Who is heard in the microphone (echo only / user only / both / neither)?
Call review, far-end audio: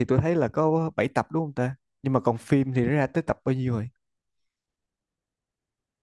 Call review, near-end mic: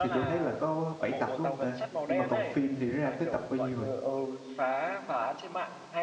both